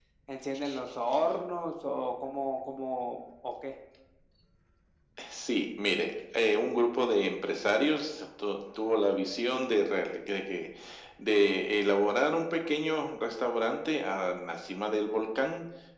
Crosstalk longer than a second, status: none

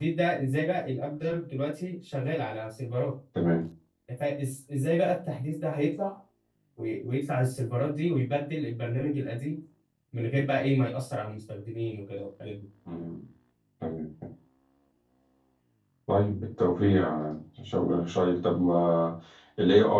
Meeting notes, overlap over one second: none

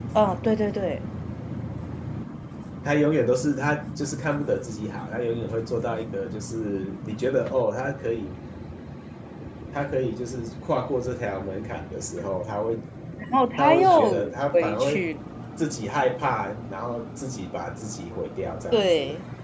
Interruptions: present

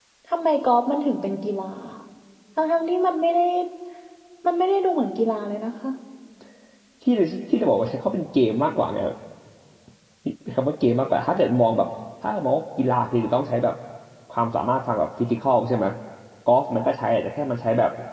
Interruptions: none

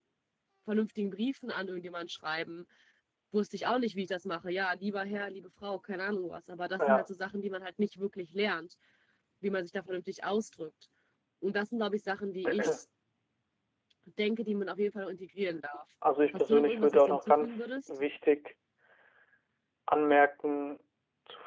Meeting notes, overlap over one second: present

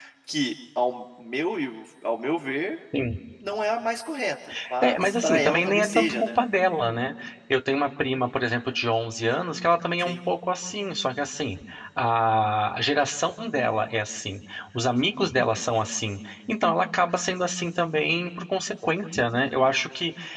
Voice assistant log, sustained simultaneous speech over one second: present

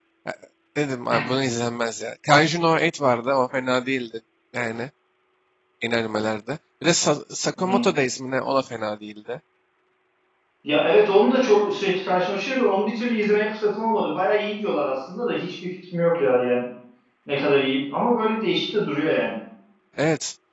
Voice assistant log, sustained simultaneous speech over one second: none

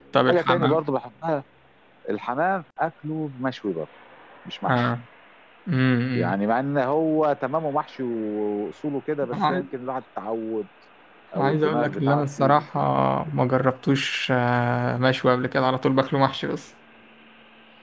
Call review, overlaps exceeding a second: present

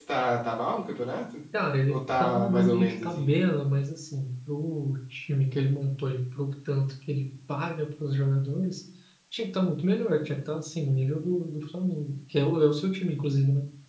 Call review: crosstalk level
present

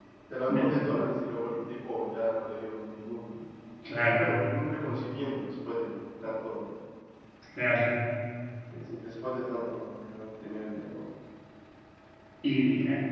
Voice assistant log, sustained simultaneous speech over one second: none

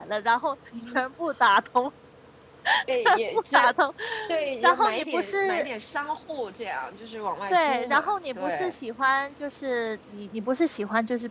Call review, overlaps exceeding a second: present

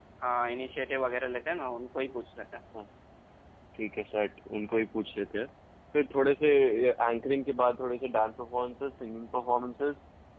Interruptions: none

